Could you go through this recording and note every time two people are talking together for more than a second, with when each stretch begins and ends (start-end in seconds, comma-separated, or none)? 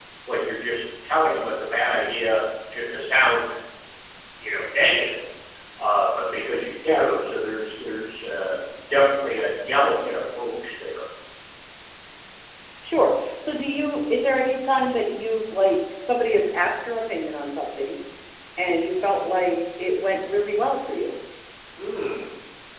none